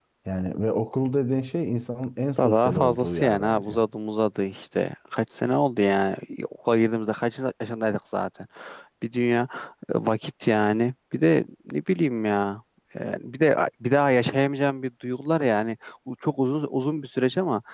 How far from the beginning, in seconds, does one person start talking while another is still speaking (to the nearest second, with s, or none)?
2 s